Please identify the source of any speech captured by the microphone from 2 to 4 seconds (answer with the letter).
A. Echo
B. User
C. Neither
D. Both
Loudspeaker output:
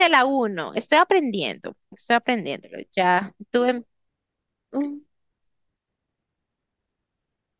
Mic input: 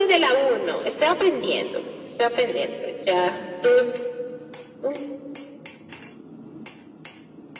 A